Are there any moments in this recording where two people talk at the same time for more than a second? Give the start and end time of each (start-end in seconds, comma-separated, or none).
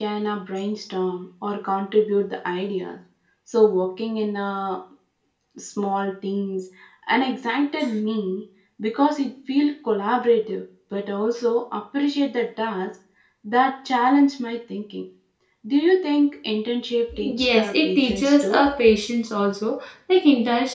17.2-18.6